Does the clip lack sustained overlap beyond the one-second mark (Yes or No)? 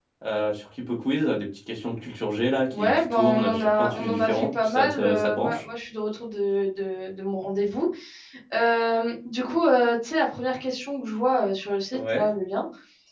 No